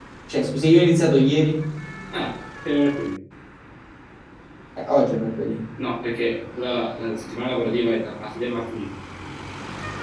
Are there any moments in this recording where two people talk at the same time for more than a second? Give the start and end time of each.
none

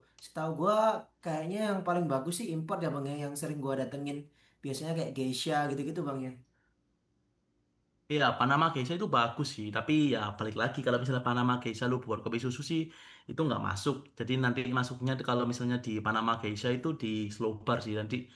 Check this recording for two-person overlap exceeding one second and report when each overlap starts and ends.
none

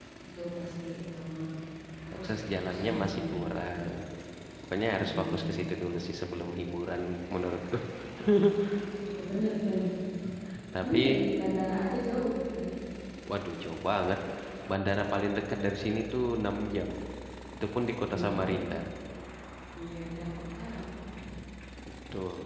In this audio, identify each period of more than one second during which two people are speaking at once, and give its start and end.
2.1-3.5

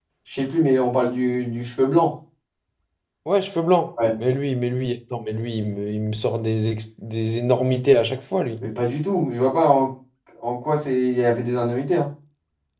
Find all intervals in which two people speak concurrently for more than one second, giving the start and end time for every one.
none

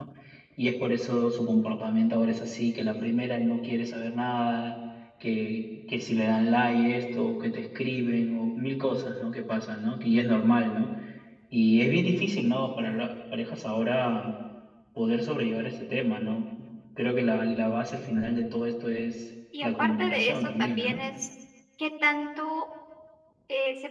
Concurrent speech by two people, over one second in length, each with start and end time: 19.6-21.0

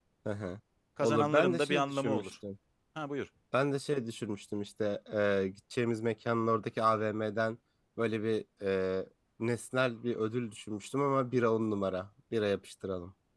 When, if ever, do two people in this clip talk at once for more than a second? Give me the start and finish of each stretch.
1.0-2.3

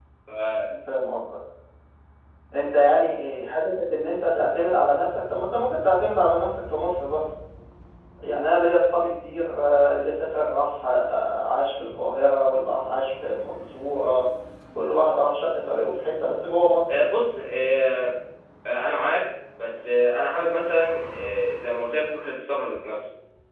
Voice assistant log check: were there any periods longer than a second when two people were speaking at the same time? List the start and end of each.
none

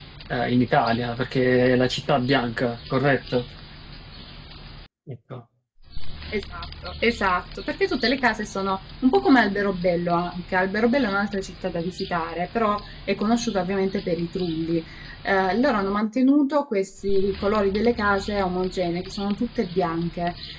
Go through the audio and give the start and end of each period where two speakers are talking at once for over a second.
none

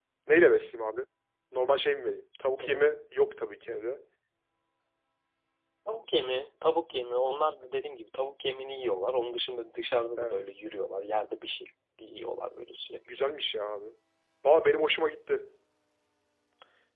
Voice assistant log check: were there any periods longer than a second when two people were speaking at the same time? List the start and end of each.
none

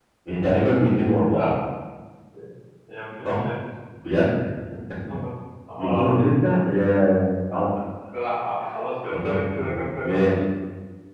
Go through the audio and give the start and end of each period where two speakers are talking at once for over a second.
9.1-10.3

